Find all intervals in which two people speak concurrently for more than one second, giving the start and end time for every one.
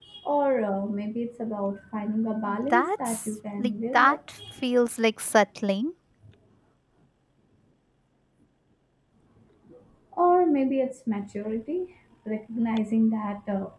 2.7-4.2

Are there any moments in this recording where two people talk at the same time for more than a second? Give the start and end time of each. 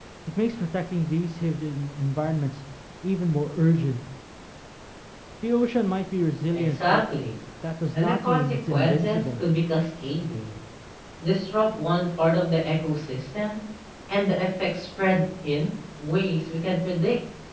7.9-9.4

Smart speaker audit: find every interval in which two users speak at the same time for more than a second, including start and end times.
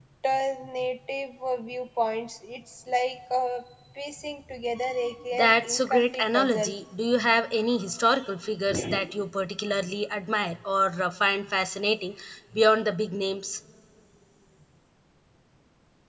5.3-6.7

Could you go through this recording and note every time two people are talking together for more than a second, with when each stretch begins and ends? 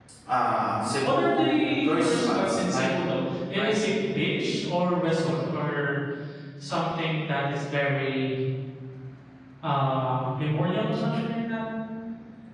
1.0-2.9

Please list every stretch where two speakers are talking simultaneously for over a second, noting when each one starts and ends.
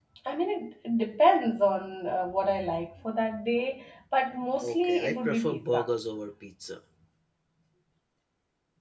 4.6-5.9

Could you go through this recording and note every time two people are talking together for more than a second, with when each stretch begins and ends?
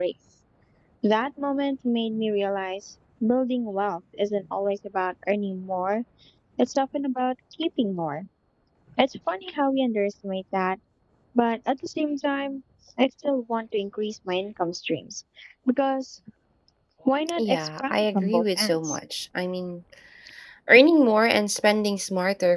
17.4-19.0

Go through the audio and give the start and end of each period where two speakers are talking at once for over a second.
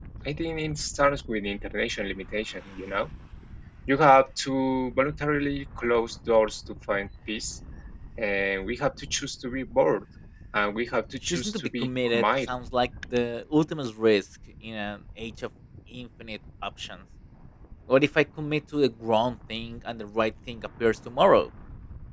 11.2-12.6

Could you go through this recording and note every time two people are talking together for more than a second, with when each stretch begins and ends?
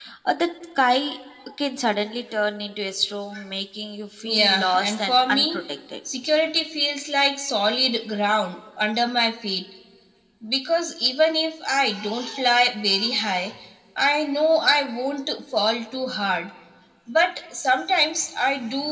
4.2-5.6

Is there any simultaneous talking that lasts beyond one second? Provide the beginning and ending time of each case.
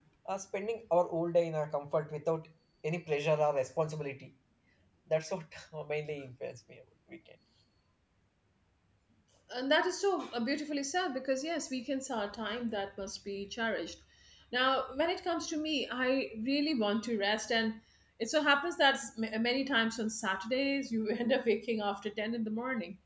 none

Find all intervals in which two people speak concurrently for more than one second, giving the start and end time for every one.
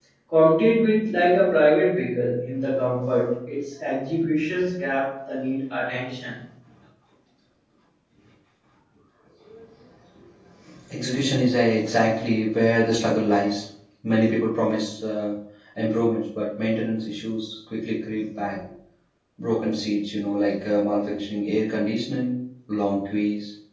none

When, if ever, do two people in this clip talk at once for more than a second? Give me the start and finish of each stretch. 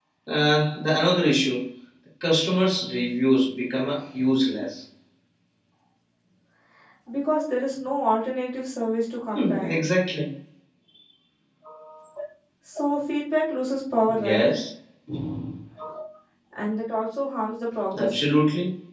none

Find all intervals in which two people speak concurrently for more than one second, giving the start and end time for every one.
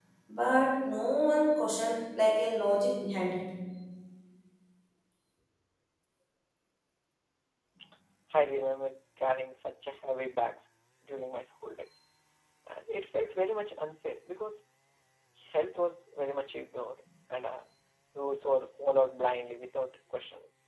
none

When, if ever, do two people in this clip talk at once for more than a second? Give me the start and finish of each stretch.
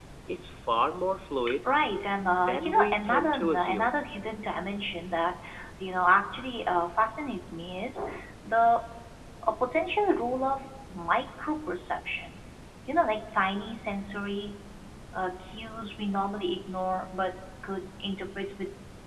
2.4-3.9

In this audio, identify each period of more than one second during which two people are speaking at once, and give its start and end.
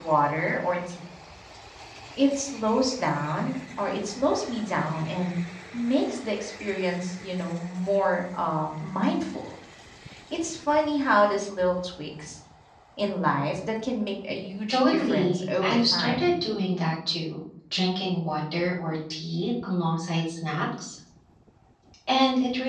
14.7-16.3

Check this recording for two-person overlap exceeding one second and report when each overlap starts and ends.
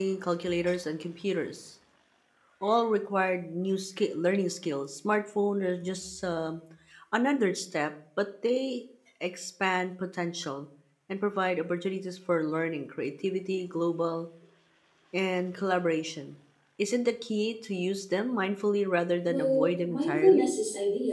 19.3-20.5

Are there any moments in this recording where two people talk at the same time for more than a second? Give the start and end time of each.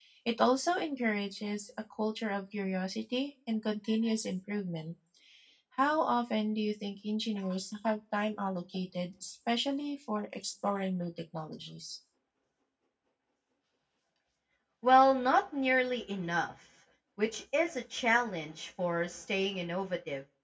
none

